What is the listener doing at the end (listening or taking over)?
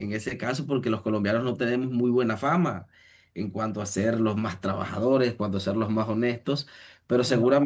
listening